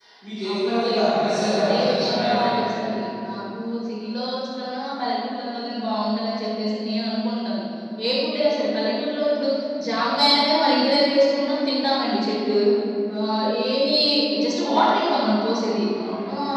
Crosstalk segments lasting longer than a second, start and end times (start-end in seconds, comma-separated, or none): 0.5-2.5